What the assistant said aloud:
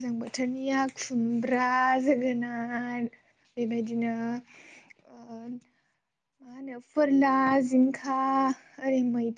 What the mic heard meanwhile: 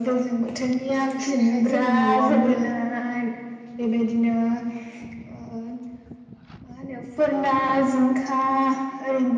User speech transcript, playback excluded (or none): ओ जेरैहाय जोङो न'वावनो